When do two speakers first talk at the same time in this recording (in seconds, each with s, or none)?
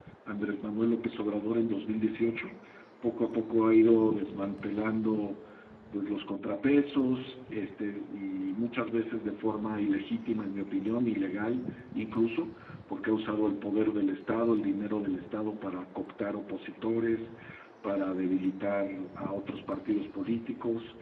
none